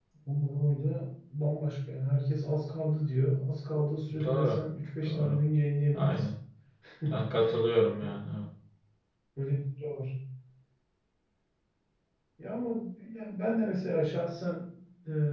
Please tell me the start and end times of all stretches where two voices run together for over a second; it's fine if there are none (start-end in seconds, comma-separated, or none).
none